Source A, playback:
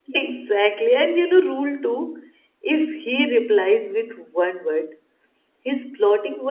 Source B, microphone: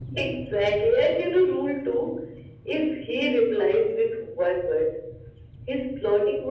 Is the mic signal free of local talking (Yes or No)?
Yes